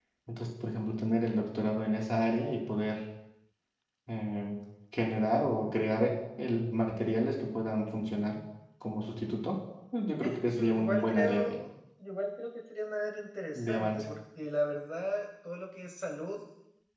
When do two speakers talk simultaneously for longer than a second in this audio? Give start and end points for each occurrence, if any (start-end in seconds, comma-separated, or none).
10.2-11.6